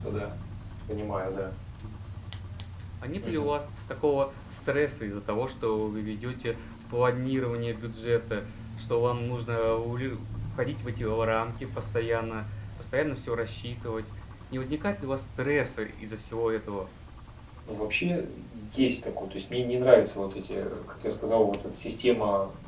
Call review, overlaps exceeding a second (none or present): none